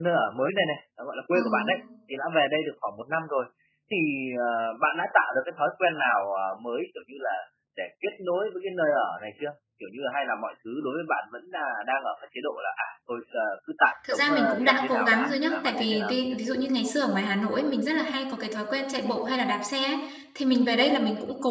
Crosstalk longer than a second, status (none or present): present